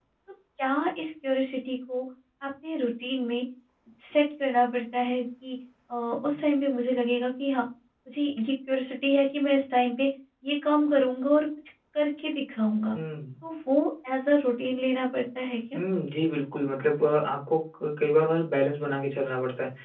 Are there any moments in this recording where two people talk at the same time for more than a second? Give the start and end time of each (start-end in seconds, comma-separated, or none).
none